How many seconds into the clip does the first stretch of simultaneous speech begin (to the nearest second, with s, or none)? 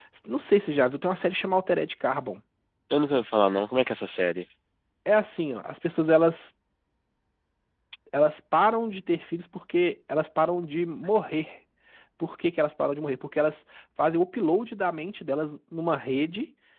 none